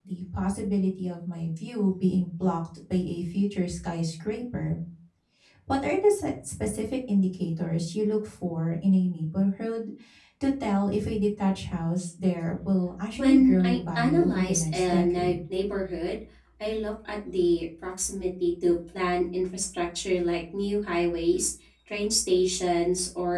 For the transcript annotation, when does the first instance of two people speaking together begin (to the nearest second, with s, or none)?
13 s